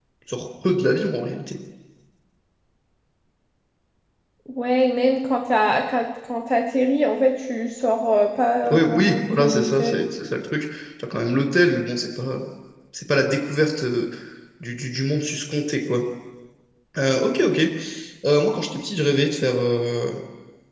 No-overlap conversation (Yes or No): No